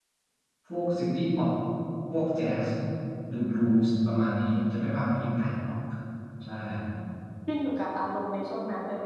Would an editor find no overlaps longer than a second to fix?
Yes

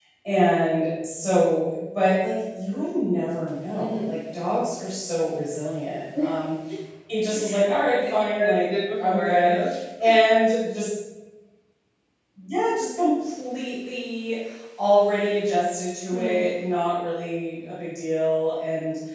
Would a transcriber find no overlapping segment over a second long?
No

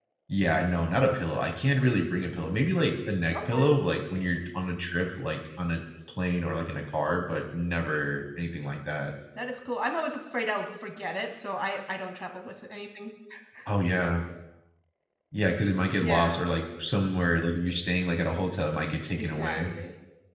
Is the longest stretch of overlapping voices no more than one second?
Yes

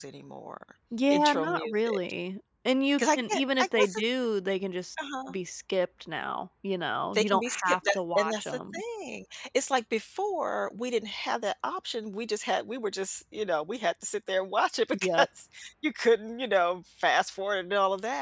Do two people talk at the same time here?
Yes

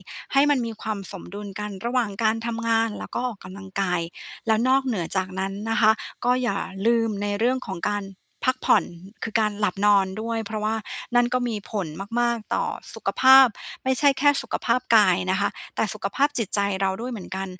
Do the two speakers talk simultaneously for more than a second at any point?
No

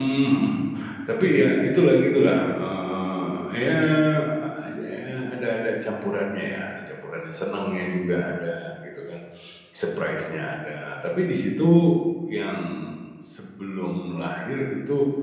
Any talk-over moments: No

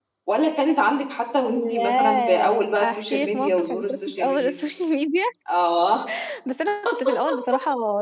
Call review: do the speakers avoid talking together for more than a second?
No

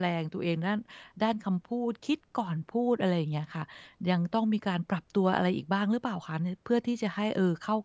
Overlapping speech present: No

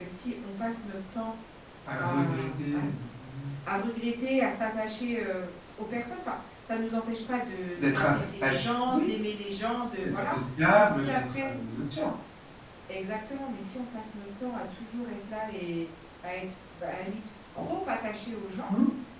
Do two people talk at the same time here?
Yes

